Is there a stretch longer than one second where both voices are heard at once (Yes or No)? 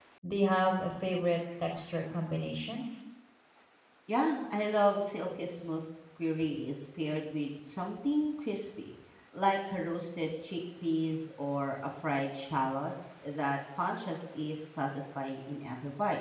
No